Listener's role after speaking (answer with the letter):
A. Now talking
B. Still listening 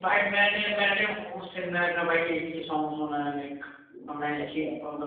A